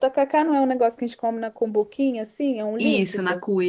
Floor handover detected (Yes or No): Yes